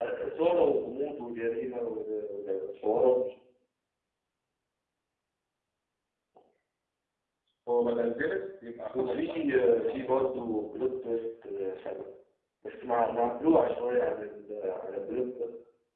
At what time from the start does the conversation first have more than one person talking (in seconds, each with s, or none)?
8.9 s